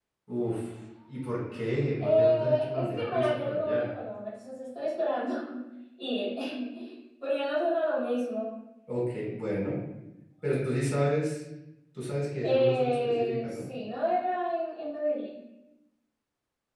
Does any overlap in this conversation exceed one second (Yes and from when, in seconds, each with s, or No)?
Yes, from 2.0 s